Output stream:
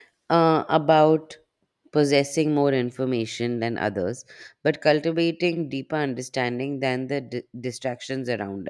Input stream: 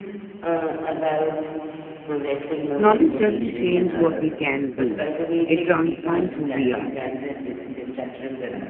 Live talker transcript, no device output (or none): Knowledge doesn't change what we can do, it transforms who we are.